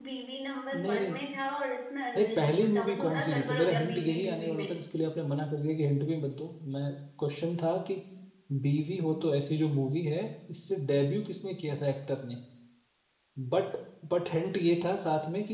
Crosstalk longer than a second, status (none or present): present